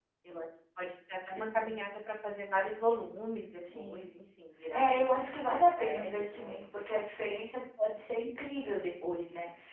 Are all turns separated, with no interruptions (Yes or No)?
No